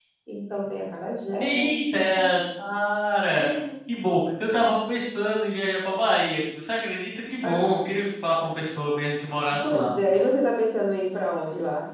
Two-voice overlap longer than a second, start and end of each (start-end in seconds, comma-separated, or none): none